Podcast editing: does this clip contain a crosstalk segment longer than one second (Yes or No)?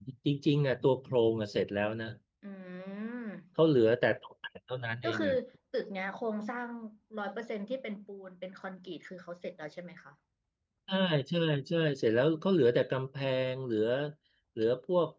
No